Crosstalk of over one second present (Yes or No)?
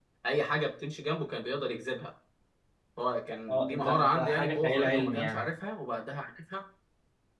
Yes